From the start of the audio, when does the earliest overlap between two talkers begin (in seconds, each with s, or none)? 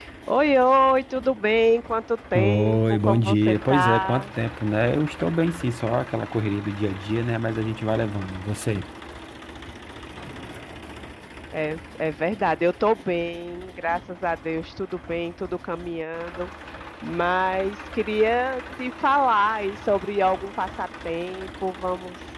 2.3 s